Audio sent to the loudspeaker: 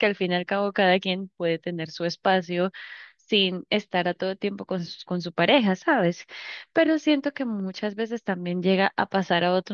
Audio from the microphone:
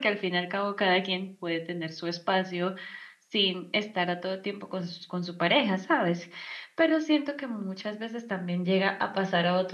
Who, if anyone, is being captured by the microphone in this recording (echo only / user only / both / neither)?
echo only